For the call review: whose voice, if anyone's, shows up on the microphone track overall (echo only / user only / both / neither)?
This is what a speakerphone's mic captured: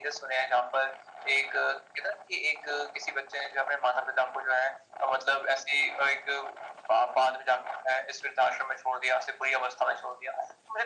echo only